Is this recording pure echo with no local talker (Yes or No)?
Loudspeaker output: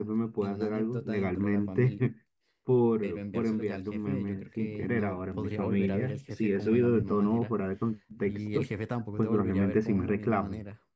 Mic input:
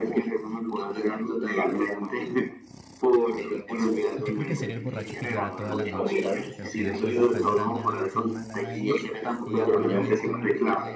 No